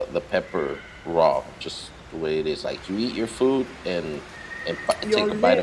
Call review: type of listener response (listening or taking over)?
taking over